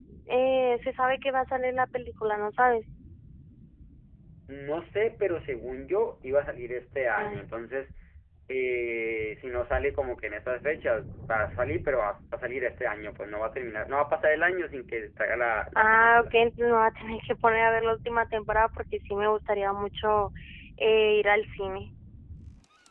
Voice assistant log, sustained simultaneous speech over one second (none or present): none